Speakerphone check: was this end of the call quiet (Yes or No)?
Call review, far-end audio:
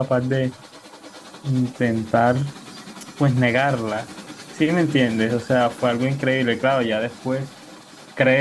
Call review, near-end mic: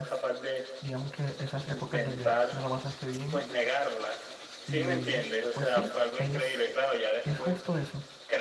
No